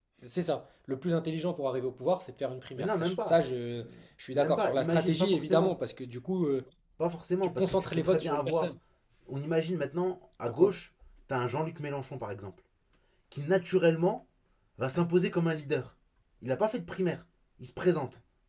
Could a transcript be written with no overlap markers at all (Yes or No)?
No